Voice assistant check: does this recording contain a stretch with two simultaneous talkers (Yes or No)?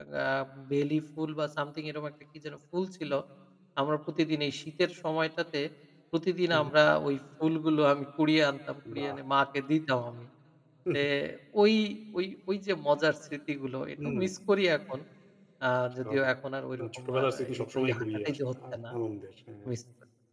Yes